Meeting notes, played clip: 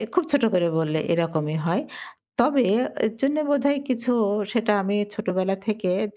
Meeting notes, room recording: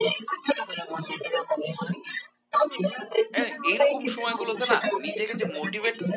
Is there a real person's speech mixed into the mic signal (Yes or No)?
Yes